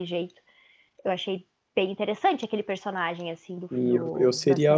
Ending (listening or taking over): taking over